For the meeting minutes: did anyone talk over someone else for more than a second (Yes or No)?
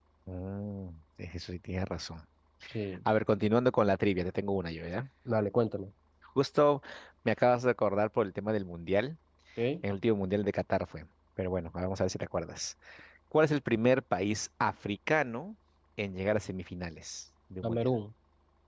No